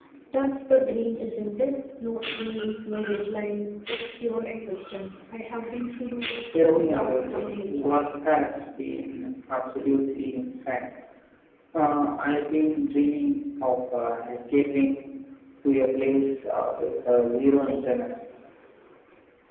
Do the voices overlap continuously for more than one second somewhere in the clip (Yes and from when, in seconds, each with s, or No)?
Yes, from 6.5 s